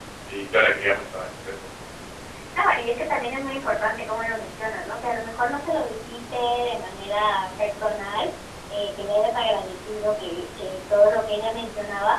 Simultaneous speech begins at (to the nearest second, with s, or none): none